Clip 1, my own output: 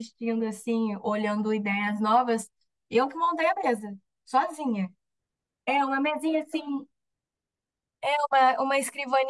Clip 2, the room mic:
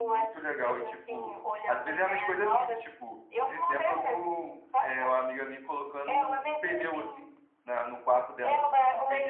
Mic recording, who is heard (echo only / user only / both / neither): both